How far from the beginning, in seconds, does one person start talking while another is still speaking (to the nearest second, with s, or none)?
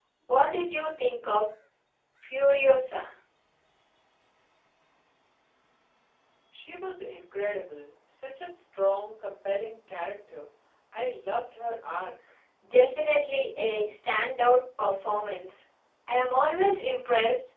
none